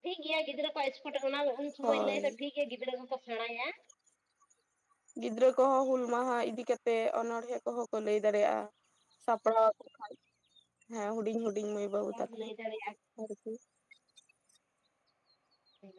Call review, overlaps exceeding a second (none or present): none